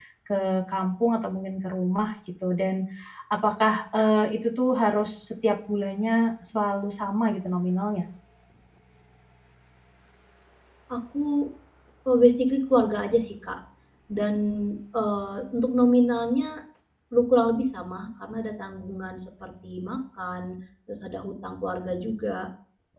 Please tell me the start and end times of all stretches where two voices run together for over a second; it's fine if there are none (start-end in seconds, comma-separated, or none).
none